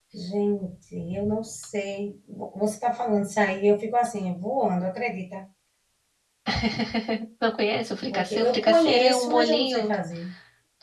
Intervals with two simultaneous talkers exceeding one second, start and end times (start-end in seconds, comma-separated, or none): 8.1-9.9